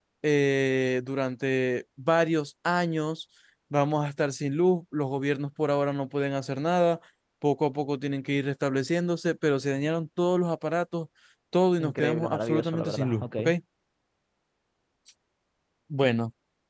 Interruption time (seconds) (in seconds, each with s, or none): 11.8 s